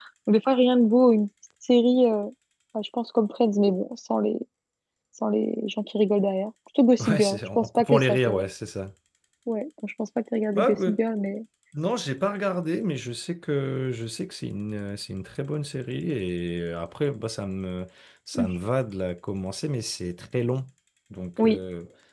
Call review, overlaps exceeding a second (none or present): present